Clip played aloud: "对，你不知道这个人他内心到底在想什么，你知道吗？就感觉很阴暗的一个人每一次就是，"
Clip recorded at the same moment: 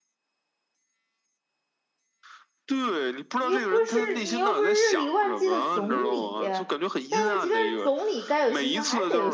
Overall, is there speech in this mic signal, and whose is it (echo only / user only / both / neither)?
both